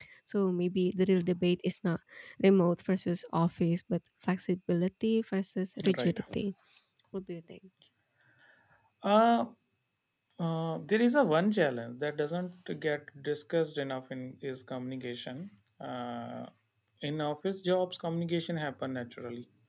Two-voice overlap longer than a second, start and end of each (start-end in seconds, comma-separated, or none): none